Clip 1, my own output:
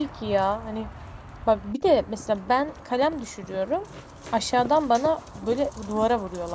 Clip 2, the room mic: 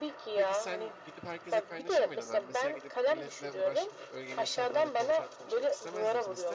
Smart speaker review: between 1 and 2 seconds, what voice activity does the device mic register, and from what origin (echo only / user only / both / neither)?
both